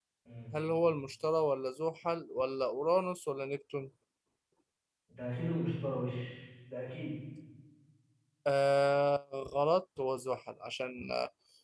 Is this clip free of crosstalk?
Yes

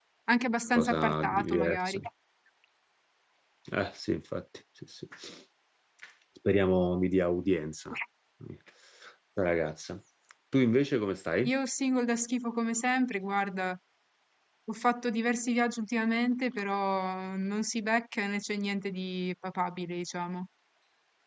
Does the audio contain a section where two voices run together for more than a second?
Yes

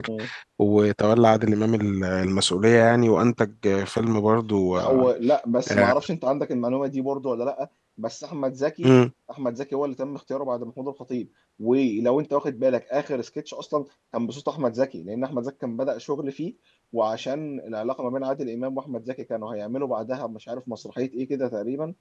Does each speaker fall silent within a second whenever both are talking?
Yes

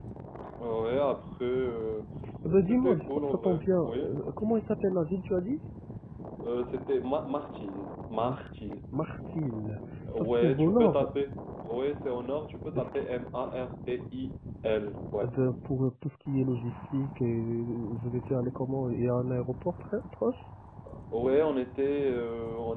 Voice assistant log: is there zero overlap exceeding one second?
No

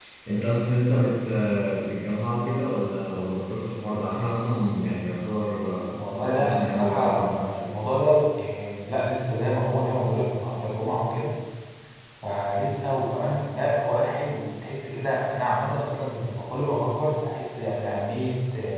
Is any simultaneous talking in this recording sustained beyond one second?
Yes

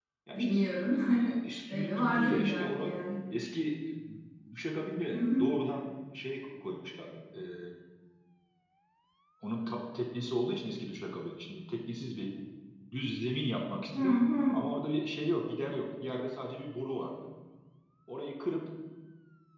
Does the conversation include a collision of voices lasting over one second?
Yes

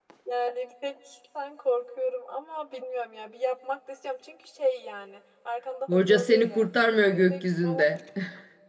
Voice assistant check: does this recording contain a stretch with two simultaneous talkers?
Yes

